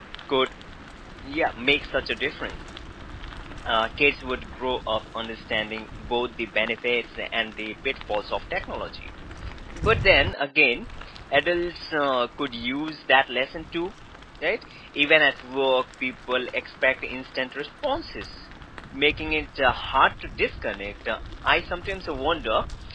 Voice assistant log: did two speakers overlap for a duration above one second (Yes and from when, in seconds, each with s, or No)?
No